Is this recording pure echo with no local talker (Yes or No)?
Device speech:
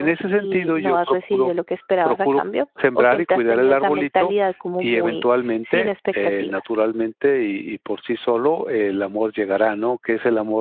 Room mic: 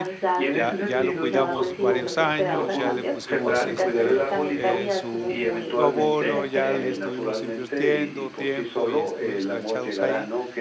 No